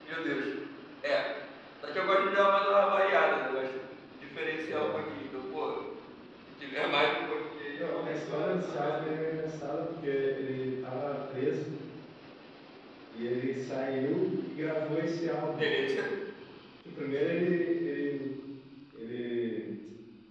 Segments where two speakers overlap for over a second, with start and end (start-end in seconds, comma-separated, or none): 7.7-9.1